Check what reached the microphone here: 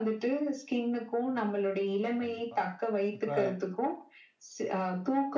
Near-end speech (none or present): present